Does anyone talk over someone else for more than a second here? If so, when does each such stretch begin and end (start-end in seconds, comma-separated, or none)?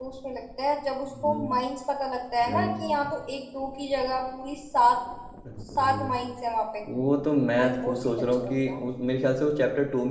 7.6-8.9